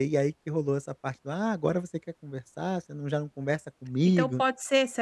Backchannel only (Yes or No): No